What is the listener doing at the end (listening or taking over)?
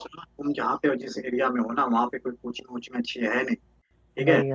listening